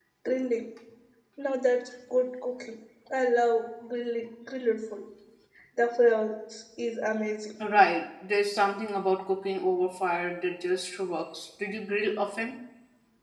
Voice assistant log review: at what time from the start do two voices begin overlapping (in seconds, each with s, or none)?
none